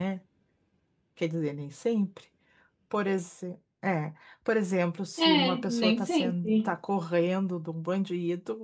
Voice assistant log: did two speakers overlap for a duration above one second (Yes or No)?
Yes